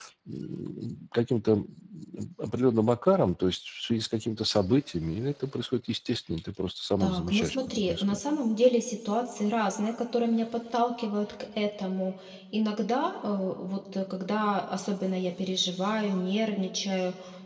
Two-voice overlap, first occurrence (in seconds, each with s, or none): 7.0 s